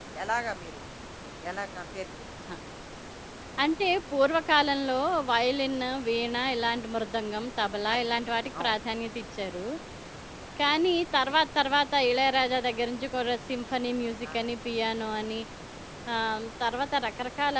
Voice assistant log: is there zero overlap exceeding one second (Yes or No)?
Yes